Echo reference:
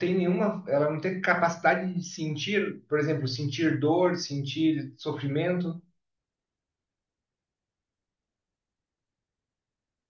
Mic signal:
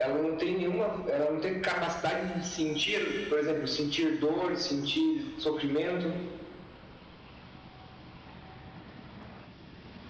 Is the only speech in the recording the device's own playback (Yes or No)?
Yes